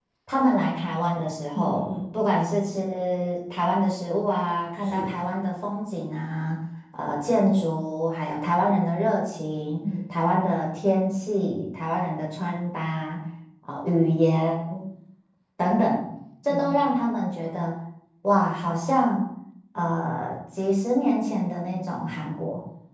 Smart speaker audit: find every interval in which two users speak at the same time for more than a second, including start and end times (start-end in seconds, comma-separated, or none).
none